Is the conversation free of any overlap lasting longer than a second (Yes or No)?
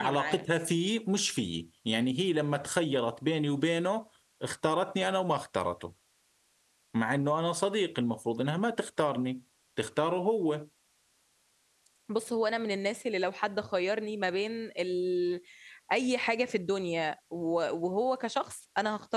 Yes